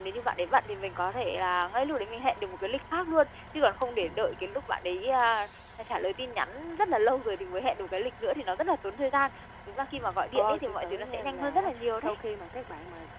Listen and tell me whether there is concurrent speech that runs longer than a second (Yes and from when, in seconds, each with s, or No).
Yes, from 10.4 s